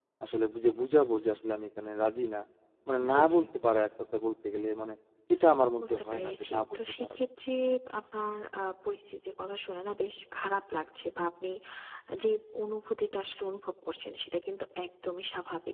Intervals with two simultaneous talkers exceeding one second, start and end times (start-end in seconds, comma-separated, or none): 5.8-7.2